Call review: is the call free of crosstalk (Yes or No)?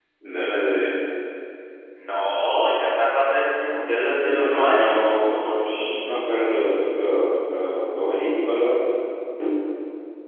No